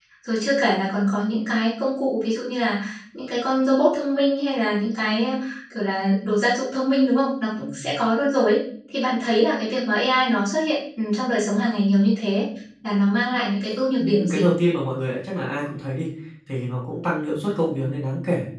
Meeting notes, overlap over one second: none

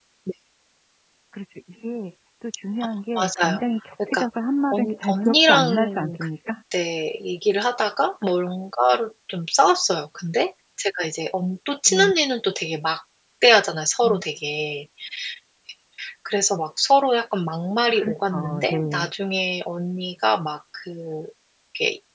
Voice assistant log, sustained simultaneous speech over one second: present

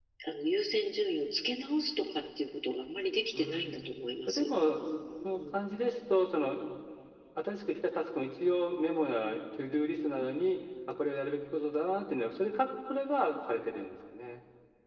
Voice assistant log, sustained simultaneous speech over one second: none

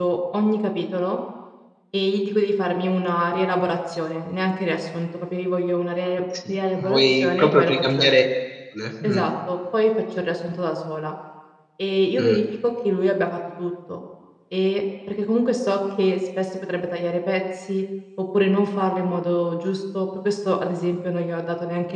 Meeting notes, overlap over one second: present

